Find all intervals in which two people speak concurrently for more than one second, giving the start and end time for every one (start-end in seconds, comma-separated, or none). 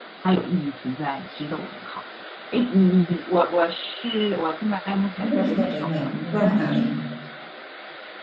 5.2-6.9